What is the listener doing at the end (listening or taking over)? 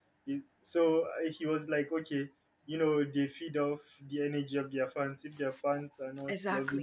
listening